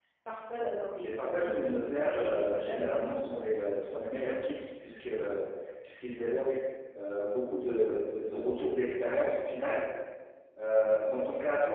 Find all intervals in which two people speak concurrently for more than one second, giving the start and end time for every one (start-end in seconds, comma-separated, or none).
1.0-3.5